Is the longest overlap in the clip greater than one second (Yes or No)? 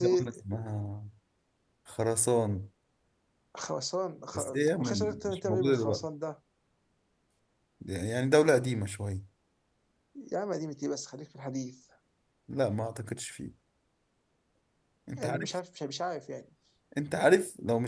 Yes